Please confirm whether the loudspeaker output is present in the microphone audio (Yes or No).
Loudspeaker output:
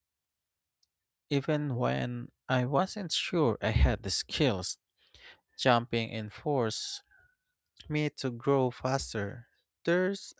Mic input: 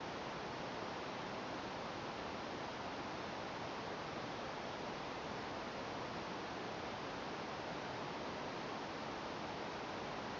No